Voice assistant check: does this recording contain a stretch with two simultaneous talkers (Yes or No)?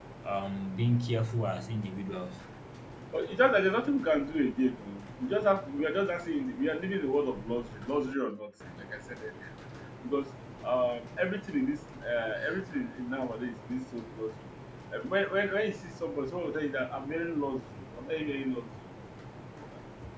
No